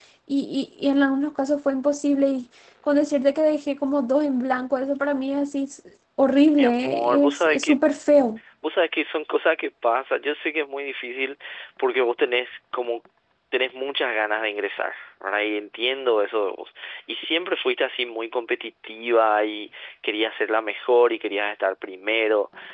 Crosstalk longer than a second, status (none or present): present